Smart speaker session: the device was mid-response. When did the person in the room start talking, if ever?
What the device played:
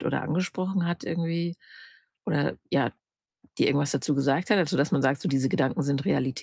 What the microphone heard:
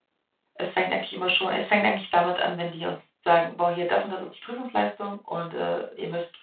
1 s

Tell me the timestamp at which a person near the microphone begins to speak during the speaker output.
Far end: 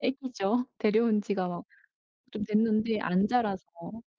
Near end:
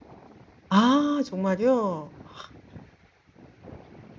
1 s

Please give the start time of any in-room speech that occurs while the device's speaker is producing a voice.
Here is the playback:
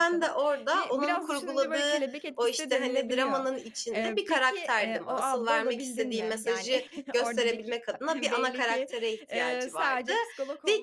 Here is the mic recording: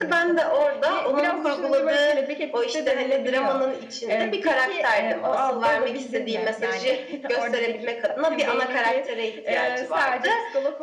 none

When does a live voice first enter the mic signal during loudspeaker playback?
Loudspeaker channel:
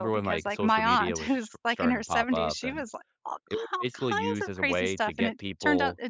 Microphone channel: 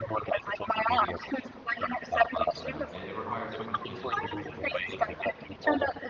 3 s

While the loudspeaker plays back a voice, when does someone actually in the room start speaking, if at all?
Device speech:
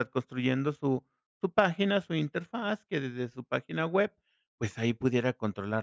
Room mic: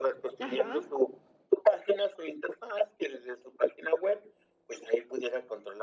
0 s

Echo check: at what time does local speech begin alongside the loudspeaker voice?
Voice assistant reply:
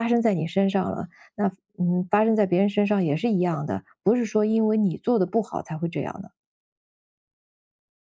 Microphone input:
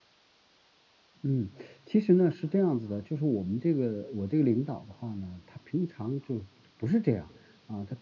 1 s

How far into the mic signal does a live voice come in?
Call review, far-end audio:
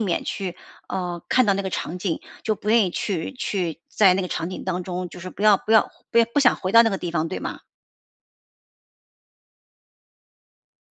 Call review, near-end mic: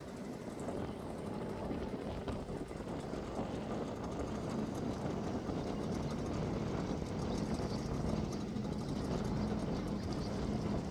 none

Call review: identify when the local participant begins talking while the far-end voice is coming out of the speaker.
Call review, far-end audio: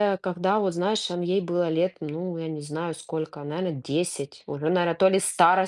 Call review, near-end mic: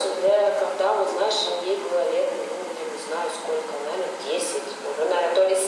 none

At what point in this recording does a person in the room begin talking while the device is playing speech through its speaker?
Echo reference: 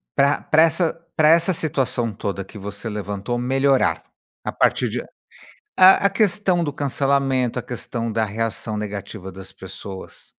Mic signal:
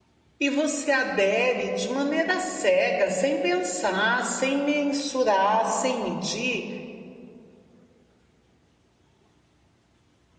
0 s

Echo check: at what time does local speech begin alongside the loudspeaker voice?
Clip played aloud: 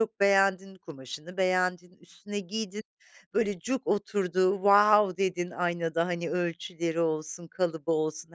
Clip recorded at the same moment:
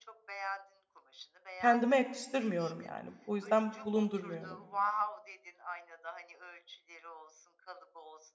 2 s

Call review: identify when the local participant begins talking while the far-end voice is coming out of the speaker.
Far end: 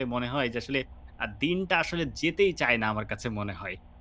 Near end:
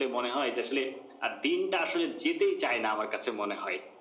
none

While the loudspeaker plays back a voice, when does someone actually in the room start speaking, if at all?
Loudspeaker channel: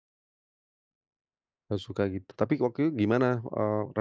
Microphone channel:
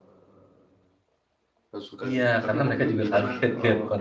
2 s

